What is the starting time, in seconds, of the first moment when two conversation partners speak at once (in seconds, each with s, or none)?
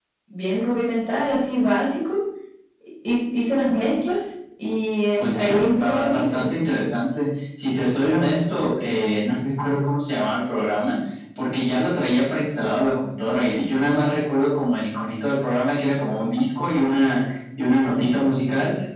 5.2 s